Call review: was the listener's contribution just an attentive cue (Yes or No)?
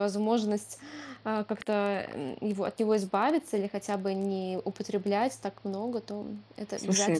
No